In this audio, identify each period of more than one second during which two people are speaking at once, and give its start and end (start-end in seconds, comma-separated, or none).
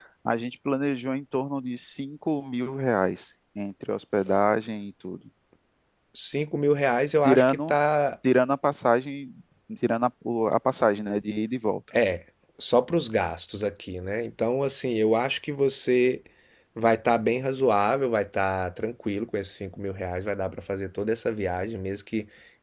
none